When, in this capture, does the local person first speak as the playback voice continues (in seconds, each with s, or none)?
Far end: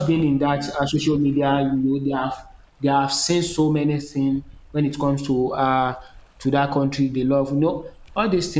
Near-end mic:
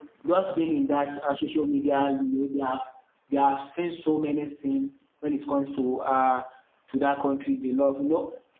none